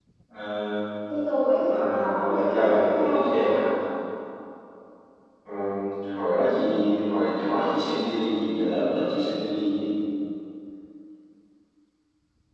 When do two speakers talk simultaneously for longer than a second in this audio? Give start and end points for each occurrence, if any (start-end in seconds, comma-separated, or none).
1.7-3.7